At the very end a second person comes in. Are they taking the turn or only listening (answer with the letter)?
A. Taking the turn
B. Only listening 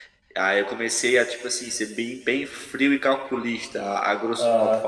A